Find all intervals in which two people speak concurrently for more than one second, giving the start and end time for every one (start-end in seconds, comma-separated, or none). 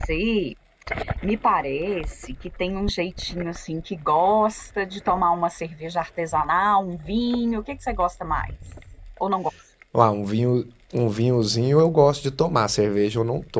none